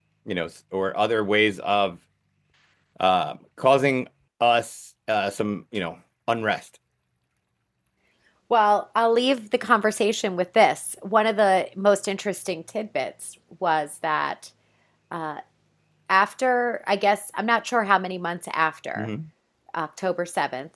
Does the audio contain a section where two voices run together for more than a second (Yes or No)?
No